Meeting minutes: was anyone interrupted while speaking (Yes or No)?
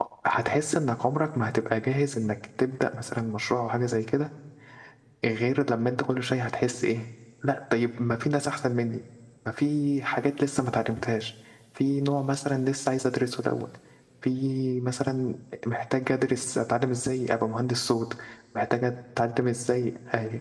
No